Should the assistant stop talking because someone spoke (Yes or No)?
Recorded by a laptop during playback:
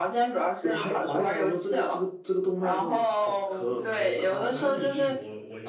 Yes